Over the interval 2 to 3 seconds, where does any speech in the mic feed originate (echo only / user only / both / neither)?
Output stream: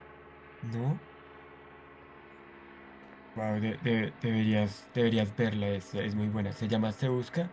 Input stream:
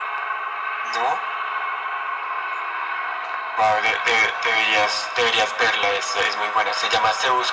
neither